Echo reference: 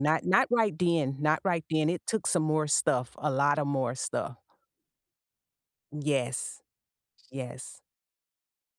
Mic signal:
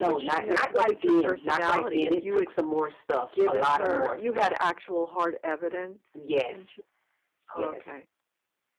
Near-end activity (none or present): present